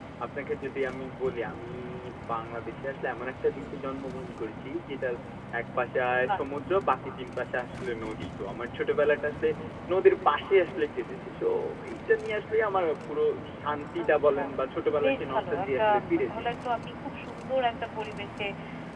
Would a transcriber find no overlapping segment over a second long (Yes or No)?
No